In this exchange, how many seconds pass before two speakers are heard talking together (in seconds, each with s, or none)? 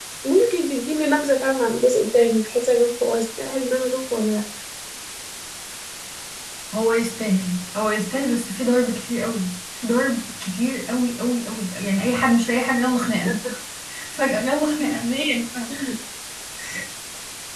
none